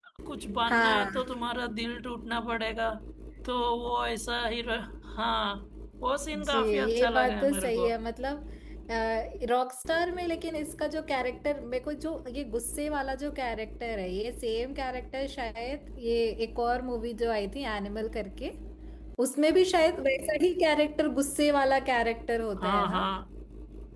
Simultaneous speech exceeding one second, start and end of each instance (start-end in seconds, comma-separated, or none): 6.4-7.9